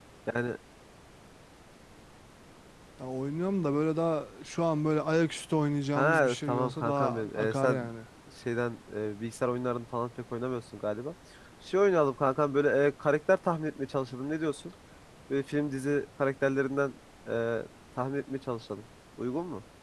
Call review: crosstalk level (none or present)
present